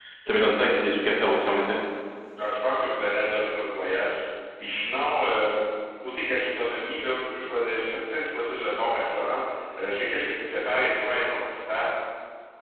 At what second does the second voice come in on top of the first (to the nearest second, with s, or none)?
none